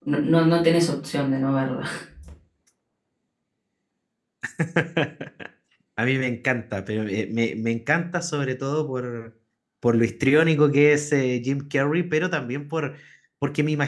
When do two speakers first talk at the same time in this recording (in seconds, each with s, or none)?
none